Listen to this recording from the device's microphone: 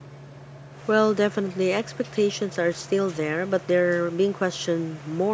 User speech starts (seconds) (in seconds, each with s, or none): 0.8 s